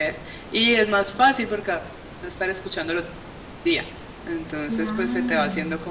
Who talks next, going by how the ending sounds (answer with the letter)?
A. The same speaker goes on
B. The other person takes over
A